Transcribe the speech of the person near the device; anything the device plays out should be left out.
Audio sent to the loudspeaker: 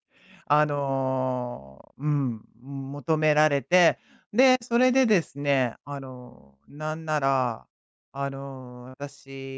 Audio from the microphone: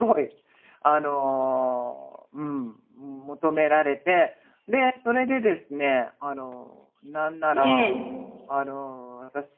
ええ。

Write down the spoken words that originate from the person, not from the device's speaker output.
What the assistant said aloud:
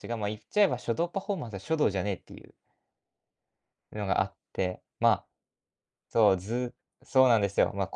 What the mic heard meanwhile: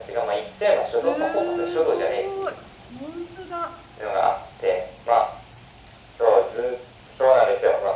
すごい、ホントだ。

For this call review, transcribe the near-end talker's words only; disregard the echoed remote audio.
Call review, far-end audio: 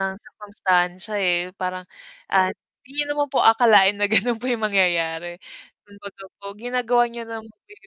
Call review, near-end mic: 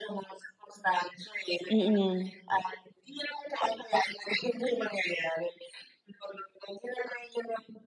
Mm.

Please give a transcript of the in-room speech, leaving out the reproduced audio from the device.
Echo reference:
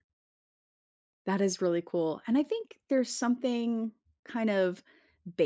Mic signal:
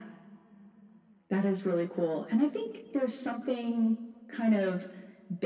none

